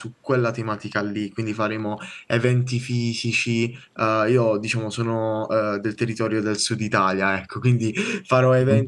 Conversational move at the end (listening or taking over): listening